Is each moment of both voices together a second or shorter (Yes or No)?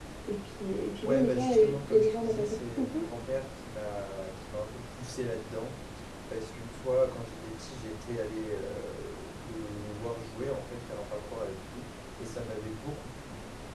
No